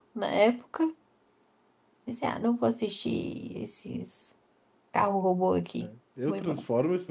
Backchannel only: No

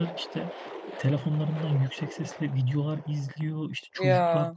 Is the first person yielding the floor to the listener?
No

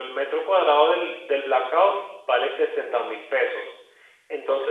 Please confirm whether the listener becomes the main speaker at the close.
No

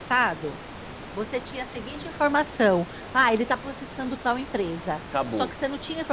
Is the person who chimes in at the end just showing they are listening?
Yes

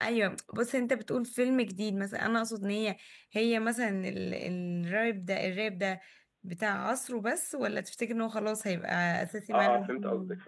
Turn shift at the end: Yes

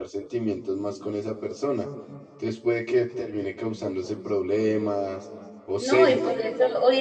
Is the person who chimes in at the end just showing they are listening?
No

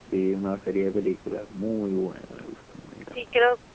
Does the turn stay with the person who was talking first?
No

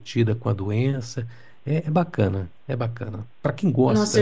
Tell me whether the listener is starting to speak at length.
Yes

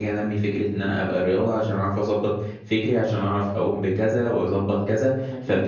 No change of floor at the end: Yes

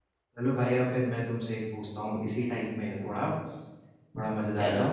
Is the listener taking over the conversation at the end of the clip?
No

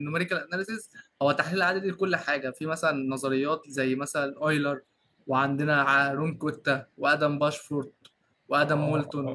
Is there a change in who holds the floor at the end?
Yes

